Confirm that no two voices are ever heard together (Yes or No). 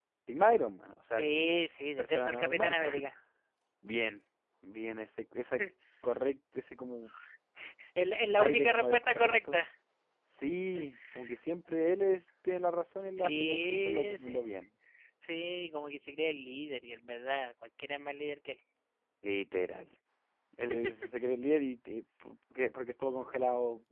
No